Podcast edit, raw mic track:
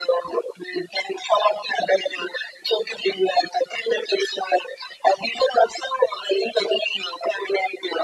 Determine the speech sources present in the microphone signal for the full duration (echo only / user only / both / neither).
echo only